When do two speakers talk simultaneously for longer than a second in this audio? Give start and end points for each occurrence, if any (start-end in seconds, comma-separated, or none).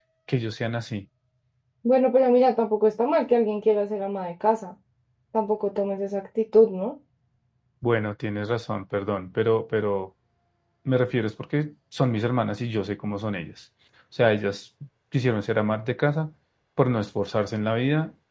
none